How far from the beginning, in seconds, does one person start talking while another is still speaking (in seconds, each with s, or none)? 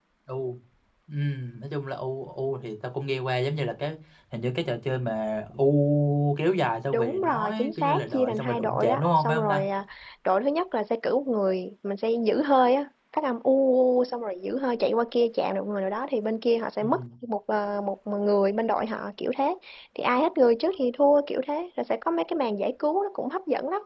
6.9 s